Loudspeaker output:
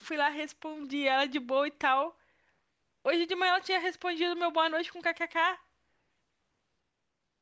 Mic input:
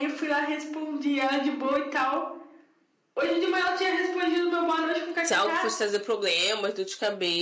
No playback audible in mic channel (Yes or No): No